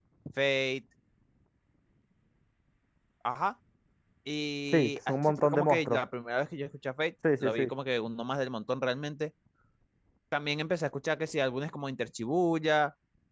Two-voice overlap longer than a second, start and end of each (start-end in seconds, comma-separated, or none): 4.7-6.0